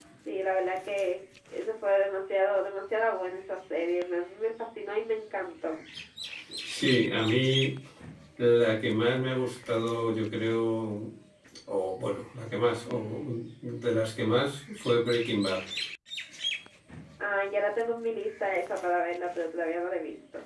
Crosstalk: none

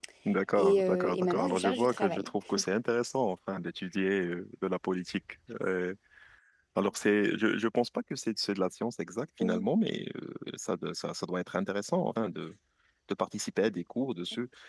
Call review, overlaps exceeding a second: present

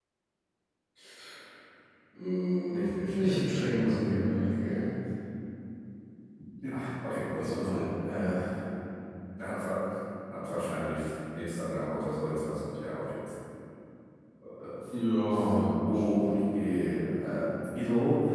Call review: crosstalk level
present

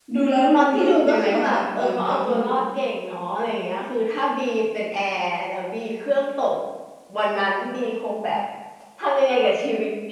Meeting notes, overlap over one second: present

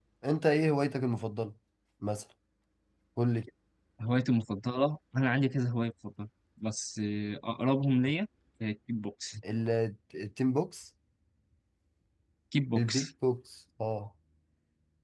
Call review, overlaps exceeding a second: none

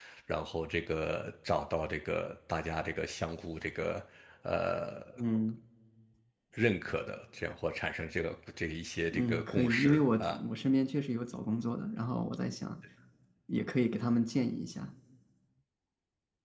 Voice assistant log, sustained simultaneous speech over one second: present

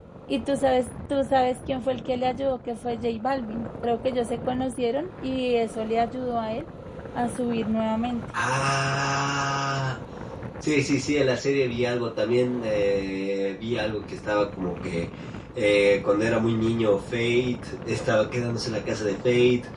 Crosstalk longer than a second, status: none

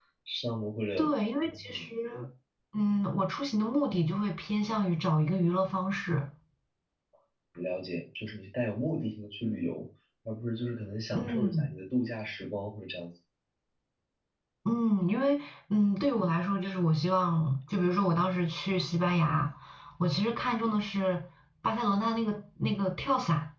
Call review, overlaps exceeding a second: none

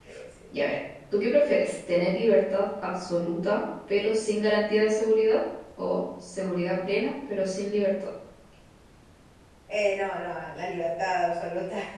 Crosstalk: none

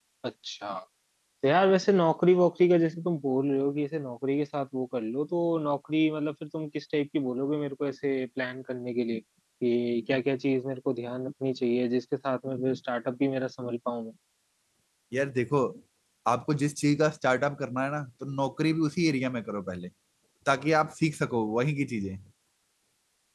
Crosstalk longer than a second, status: none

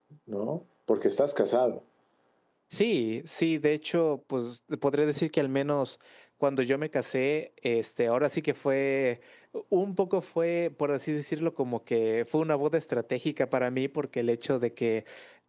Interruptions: none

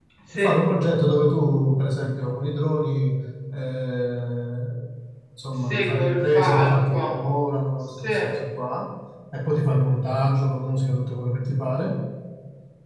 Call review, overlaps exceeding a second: present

